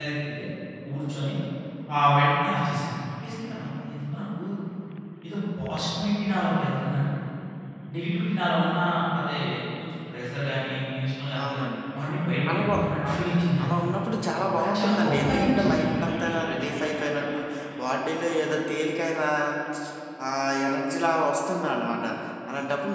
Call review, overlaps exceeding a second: present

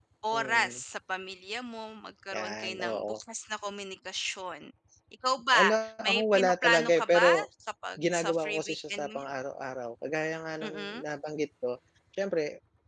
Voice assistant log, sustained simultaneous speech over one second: present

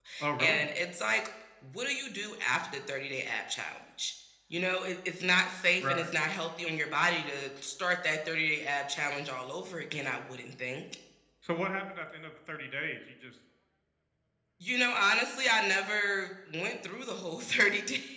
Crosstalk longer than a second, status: none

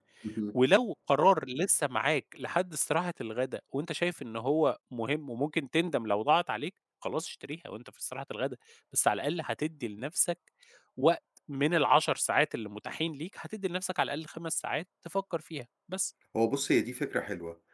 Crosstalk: none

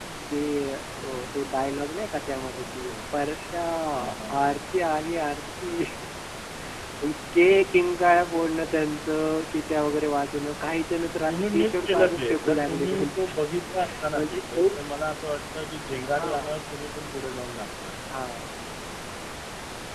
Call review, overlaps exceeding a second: present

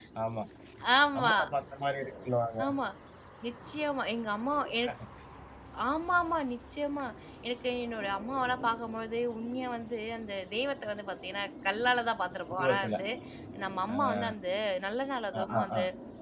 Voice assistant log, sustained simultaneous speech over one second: none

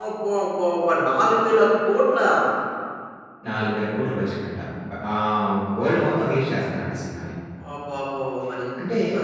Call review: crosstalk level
none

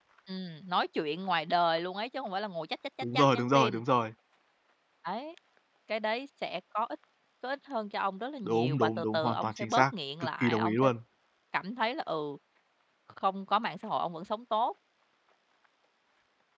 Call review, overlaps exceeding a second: present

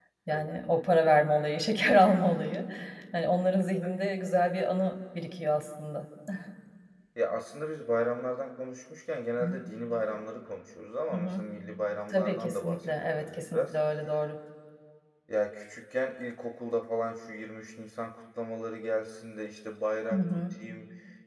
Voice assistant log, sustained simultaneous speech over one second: present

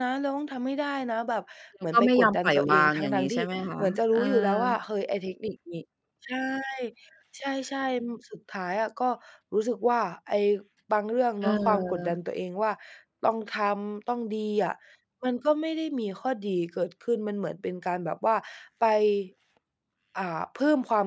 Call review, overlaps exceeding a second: present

